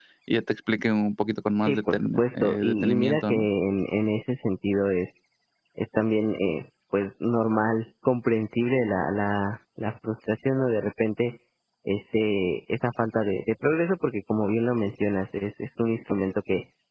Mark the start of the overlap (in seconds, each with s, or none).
1.6 s